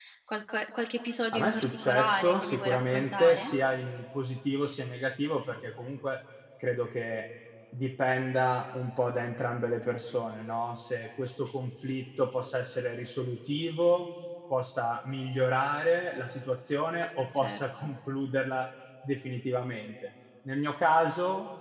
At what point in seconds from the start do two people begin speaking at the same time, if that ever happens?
1 s

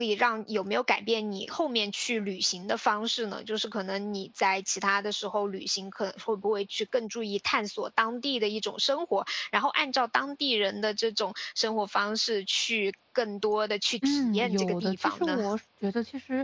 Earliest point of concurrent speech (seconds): 14 s

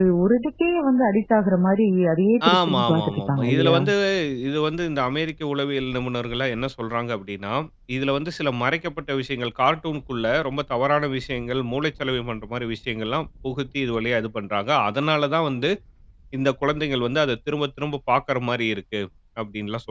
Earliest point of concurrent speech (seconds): 2 s

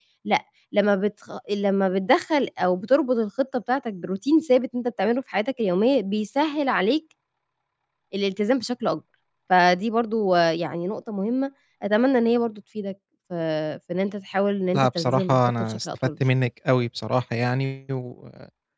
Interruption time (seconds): 15 s

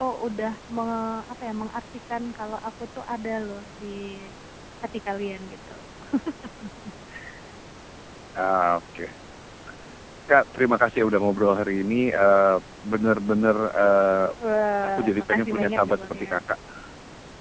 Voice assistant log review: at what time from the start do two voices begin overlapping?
15 s

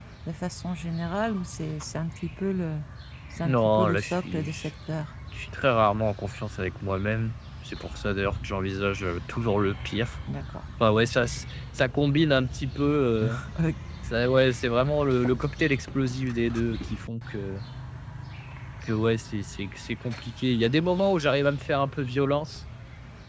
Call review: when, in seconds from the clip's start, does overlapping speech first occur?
3 s

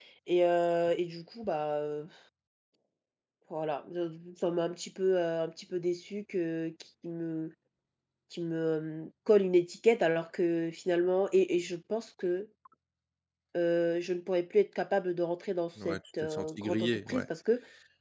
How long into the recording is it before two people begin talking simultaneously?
16 s

